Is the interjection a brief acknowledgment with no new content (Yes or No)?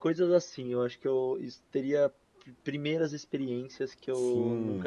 No